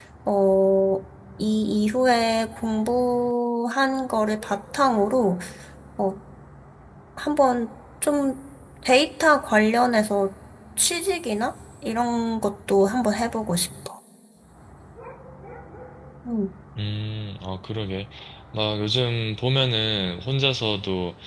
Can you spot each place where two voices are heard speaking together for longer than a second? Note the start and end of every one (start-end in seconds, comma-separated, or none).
none